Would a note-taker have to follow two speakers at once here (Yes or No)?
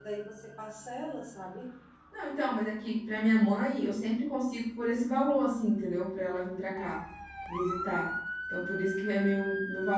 No